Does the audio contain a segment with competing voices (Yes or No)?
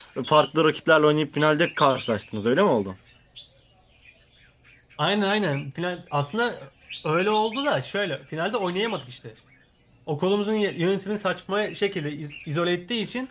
No